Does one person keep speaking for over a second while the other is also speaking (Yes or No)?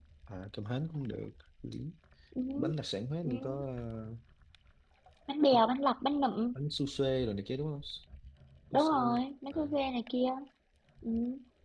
No